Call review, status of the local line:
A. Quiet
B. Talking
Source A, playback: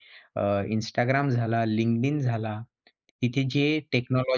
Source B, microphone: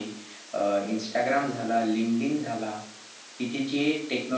A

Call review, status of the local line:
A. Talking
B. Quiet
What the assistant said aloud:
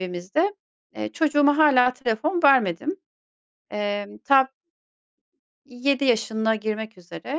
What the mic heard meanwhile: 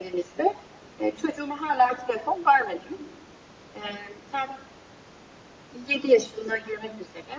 B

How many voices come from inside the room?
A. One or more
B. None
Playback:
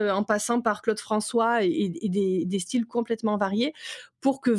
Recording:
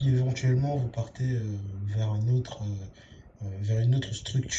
A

